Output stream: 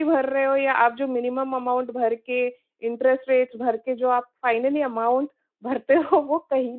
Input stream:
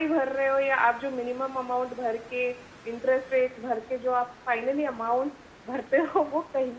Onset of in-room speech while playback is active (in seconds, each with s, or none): none